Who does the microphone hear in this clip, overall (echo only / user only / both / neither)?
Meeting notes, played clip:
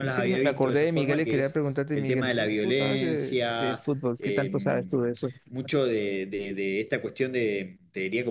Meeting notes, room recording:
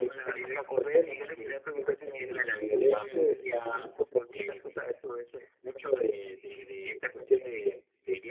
echo only